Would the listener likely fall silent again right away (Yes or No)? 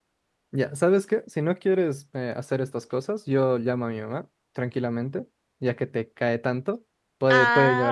No